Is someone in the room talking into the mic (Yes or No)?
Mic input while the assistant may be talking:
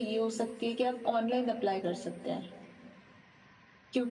No